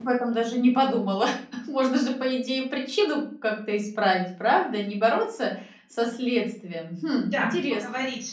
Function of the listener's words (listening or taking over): taking over